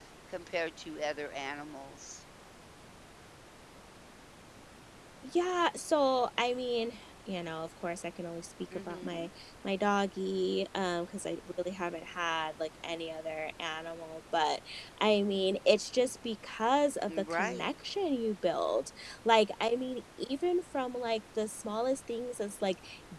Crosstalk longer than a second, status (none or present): none